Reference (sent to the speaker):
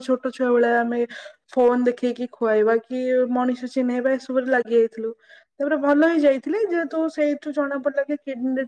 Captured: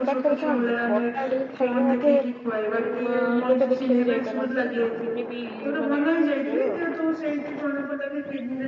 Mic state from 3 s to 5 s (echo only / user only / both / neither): both